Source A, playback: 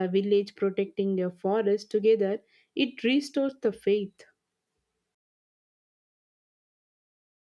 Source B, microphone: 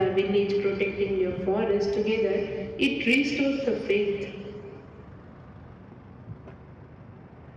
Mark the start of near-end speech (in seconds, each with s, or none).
none